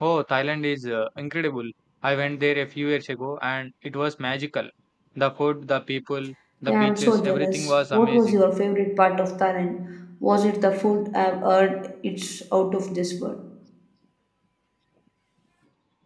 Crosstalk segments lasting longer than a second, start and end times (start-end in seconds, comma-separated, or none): 6.7-8.4